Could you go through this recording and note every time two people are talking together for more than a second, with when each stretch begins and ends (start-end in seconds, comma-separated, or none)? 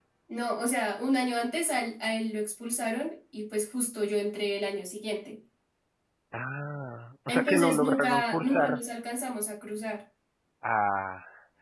7.3-8.8